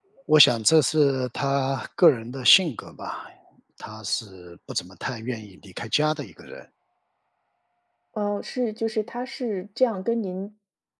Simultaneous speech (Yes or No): No